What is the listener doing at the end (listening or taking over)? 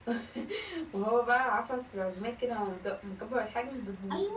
taking over